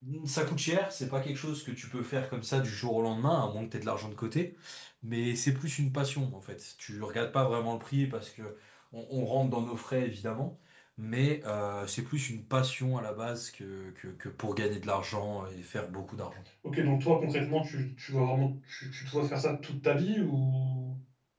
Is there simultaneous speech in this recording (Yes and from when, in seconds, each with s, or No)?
No